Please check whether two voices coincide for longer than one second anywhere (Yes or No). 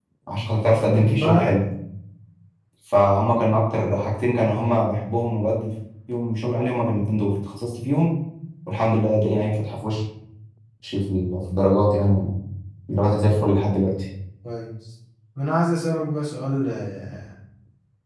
No